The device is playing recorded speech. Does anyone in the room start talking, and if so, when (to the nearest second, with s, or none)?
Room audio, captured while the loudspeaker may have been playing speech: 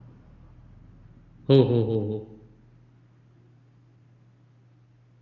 1 s